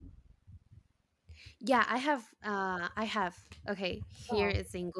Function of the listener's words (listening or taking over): listening